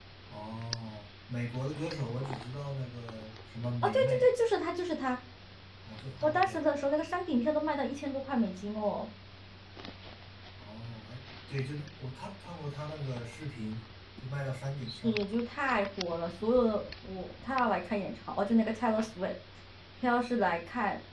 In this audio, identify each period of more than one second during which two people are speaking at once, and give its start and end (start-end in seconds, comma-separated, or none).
none